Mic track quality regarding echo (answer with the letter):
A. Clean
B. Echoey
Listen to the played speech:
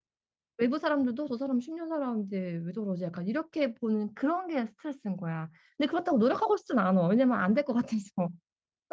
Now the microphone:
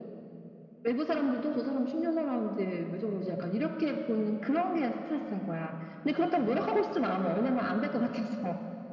B